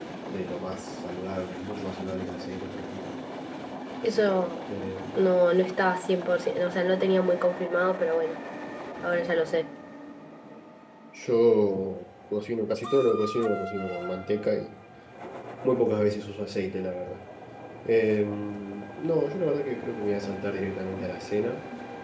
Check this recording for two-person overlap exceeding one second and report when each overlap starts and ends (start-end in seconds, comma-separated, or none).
none